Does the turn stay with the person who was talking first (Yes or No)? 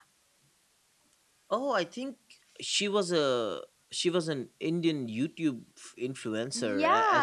No